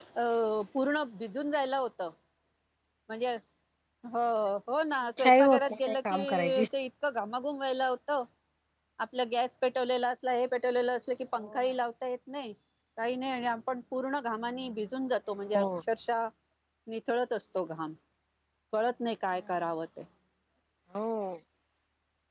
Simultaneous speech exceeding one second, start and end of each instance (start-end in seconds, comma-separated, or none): 5.2-6.6